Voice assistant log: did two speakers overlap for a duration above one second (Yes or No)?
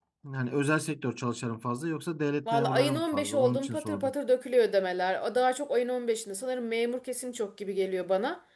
Yes